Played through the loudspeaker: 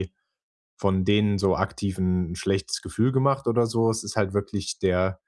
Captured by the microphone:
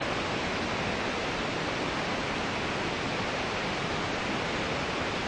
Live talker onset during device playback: none

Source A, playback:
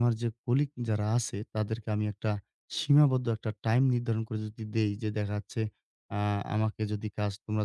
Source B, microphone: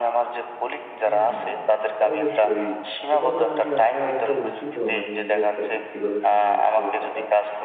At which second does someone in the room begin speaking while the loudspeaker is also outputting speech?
1.0 s

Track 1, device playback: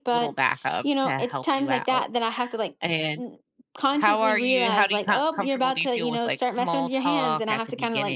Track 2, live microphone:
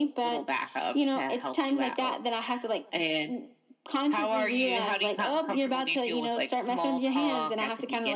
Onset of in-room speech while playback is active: none

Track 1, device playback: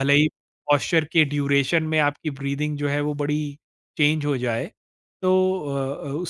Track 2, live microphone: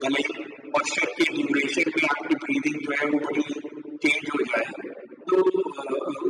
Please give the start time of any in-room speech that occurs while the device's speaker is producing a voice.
none

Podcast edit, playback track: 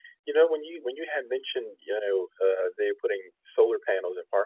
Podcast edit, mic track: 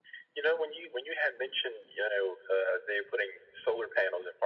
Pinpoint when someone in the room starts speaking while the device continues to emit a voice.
none

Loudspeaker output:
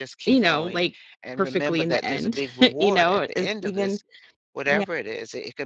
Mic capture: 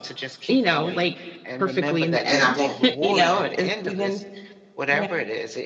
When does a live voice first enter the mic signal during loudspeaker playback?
2.3 s

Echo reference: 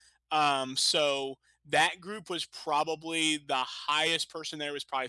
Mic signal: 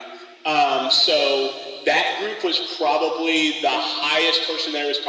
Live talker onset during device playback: none

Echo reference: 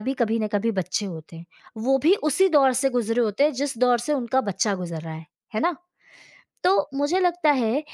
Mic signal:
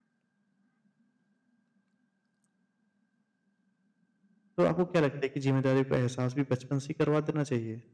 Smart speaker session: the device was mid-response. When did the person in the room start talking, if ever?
4.6 s

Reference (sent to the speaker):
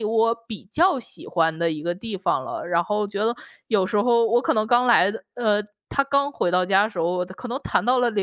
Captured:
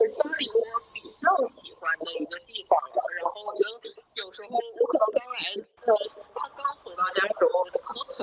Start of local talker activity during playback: none

